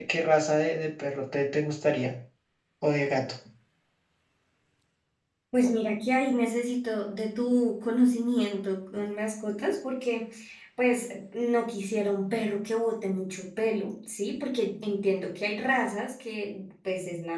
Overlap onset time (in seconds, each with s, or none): none